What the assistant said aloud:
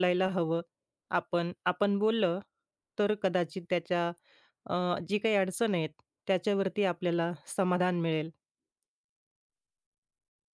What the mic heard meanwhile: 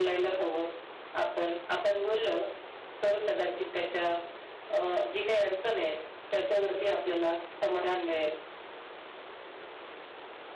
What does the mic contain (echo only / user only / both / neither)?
echo only